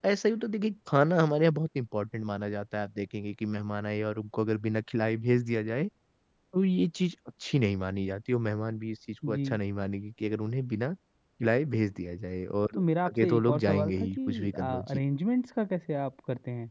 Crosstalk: present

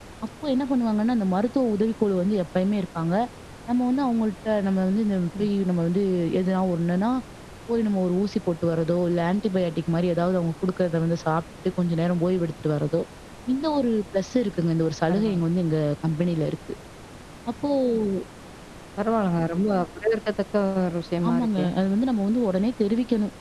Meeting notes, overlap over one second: none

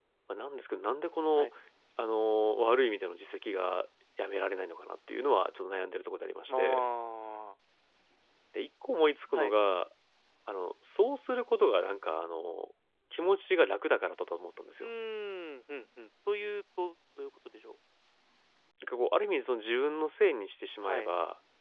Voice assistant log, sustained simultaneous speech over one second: none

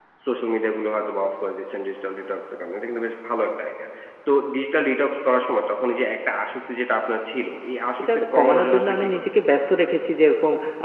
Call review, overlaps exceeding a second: present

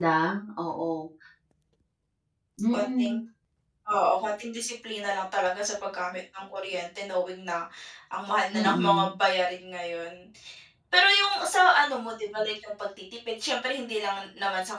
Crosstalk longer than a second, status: none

